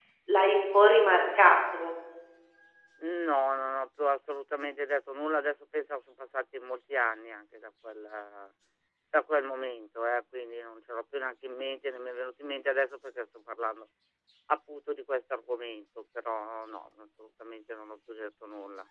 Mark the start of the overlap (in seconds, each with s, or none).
none